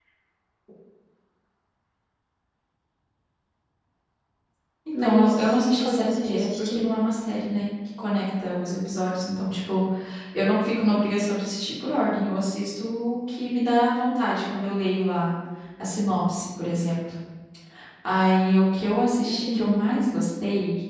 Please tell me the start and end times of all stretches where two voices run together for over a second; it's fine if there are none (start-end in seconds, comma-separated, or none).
5.0-6.9